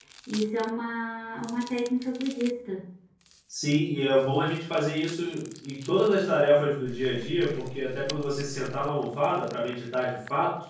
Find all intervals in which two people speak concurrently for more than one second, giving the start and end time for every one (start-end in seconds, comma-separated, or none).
none